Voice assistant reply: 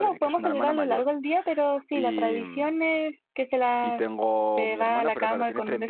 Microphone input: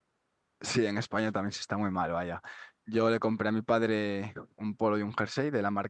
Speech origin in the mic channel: user only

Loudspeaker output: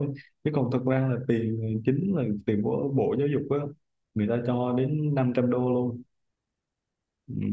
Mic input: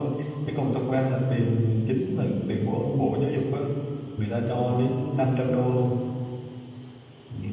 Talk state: echo only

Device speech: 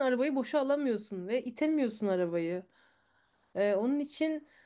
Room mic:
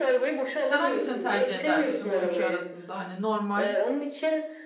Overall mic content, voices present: both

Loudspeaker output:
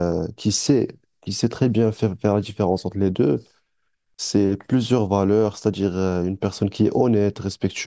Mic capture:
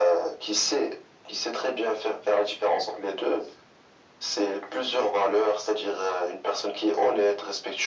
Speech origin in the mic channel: echo only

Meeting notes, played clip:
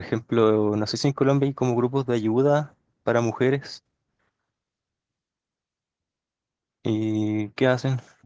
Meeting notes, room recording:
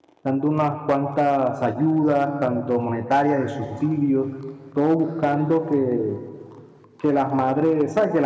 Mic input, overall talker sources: user only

